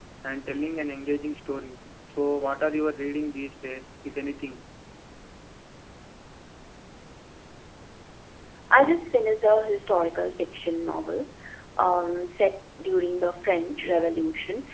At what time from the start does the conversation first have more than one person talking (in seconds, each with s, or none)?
none